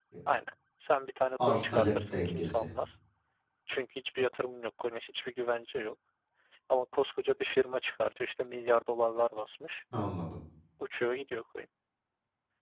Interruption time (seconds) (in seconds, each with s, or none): 1.4 s